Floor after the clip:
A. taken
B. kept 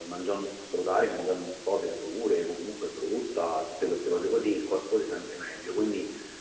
B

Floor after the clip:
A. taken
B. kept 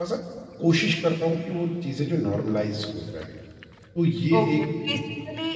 A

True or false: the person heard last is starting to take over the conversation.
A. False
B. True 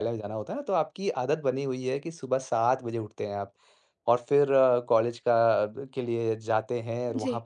A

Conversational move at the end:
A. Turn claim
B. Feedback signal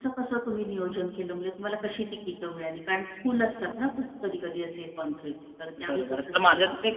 A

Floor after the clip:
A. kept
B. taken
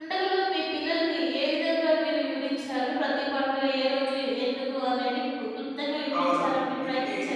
B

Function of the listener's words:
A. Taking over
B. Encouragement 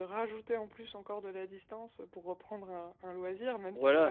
A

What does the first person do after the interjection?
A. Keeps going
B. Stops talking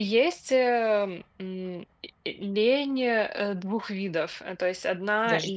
A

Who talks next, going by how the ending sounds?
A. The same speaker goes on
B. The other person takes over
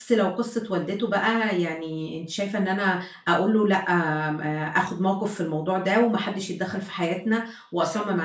B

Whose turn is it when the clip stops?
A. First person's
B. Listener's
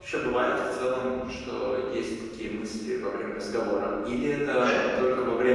A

